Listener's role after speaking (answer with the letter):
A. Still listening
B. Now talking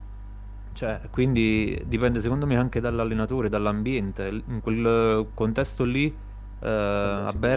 A